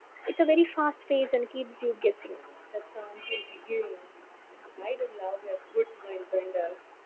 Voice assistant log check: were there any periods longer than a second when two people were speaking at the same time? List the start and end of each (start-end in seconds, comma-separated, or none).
none